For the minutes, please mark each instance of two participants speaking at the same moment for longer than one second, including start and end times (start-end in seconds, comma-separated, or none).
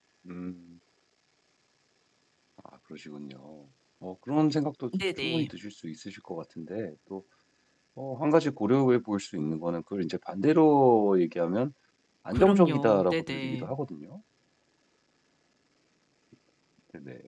12.3-13.7